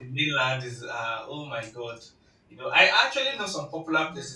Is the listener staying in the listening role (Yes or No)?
Yes